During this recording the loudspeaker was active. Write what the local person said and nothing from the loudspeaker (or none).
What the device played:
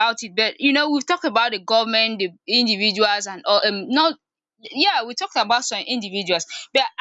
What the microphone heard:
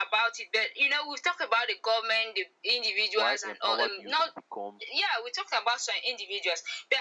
while empowered youths become